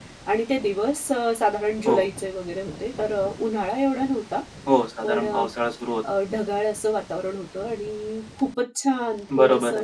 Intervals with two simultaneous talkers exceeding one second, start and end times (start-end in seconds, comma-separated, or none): none